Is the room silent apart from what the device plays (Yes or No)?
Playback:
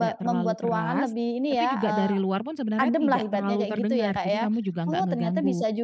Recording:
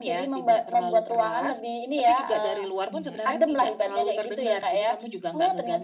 No